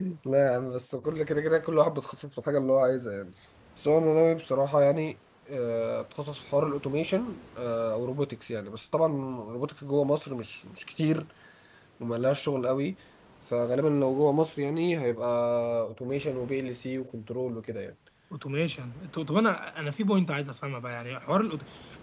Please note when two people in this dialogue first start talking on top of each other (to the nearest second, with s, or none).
none